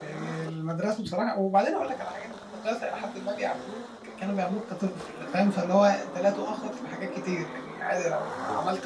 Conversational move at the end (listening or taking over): listening